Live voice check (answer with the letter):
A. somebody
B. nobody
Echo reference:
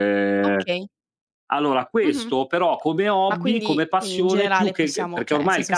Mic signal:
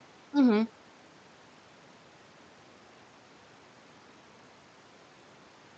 A